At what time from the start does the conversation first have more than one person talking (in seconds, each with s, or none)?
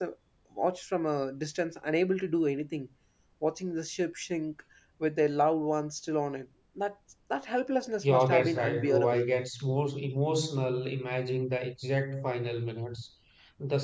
8.0 s